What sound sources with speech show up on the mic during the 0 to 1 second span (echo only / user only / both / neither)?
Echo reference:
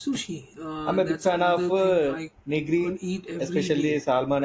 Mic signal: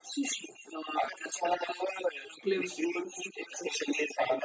echo only